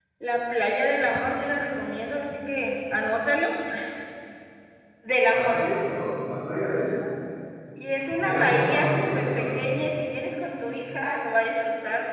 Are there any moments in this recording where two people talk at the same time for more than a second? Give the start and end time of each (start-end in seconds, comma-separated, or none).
8.2-9.7